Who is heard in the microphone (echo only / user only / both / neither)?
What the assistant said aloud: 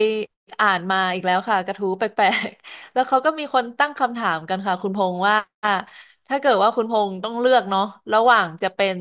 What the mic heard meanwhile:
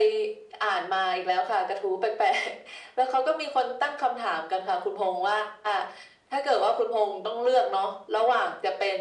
echo only